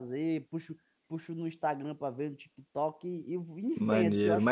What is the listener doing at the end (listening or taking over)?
taking over